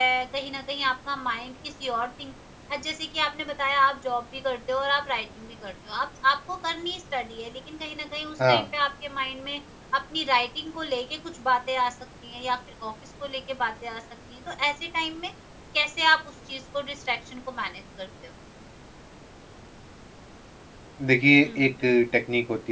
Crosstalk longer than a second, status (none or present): none